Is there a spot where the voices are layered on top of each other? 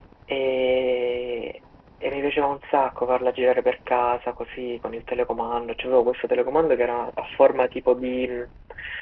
No

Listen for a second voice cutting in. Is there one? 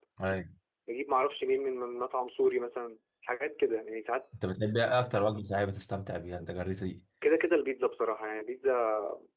No

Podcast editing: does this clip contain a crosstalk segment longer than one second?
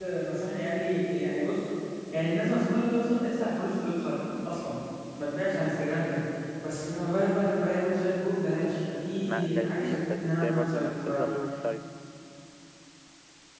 Yes, from 9.2 s

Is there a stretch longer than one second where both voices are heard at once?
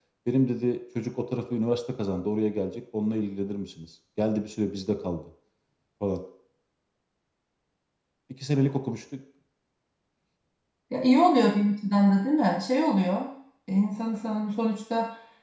No

